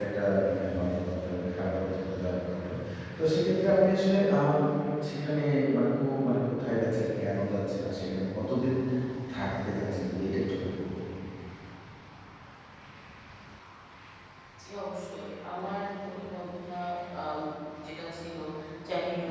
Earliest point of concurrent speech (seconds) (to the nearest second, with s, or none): none